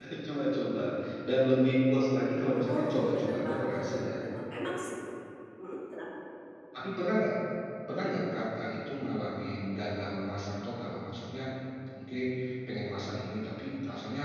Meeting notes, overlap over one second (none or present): present